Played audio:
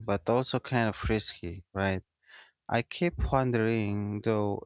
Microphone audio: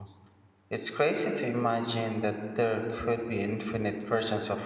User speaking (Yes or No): Yes